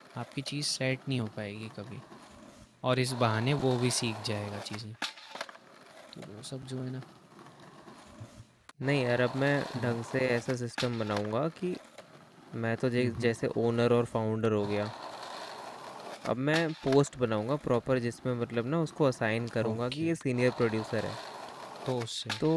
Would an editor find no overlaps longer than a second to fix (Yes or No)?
Yes